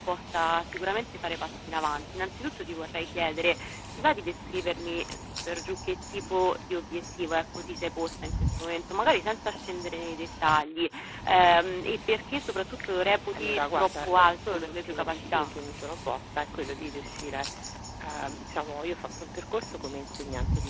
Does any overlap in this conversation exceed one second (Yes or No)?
Yes